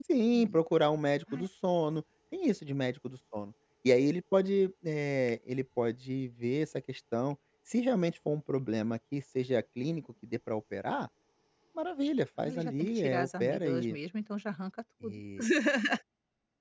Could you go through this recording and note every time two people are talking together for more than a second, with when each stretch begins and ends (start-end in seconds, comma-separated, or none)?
12.5-14.0